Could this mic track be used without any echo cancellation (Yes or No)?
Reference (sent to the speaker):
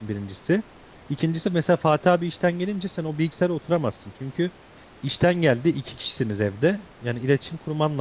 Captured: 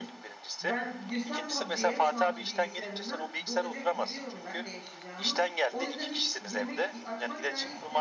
No